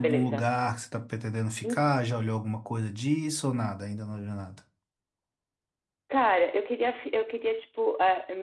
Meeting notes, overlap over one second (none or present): none